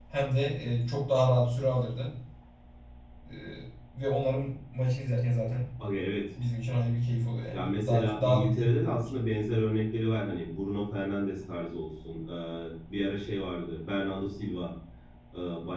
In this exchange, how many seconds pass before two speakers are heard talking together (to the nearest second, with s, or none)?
8 s